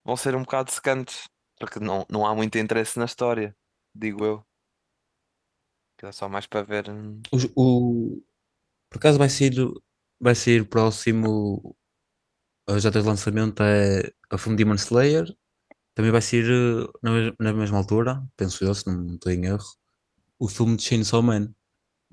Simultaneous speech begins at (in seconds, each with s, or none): none